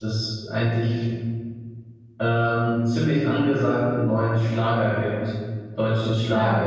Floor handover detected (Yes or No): No